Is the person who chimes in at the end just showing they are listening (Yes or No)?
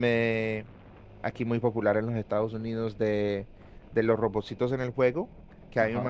Yes